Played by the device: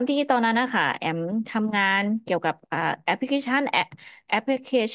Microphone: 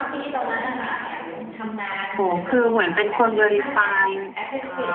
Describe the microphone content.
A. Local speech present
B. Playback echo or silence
A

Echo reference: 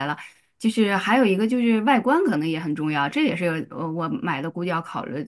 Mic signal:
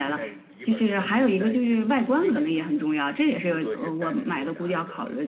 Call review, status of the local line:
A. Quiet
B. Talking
B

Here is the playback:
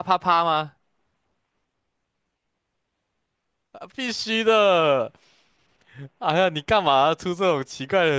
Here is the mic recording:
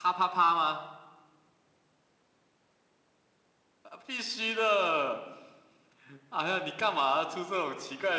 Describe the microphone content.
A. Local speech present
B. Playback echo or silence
B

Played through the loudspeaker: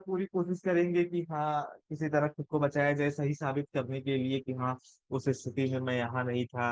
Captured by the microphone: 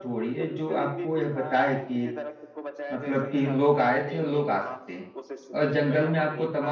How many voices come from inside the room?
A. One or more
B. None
A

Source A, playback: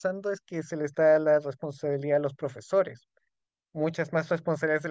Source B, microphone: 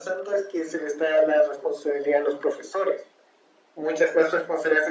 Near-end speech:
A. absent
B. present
A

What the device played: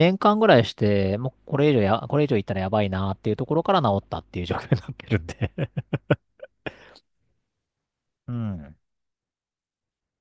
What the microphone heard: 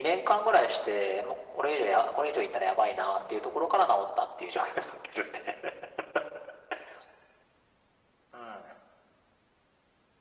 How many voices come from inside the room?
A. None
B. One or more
A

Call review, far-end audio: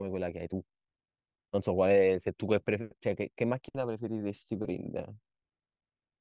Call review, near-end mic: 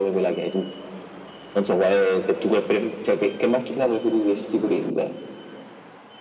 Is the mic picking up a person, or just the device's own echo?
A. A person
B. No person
B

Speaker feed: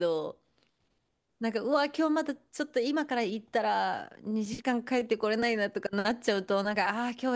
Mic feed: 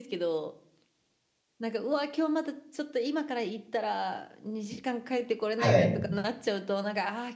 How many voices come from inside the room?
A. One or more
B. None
A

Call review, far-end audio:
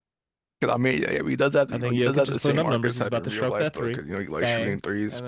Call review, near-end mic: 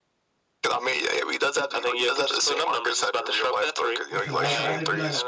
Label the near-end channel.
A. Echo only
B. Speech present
B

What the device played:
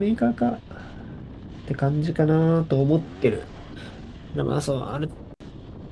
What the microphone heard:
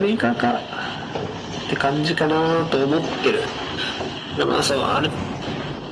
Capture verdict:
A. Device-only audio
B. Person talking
A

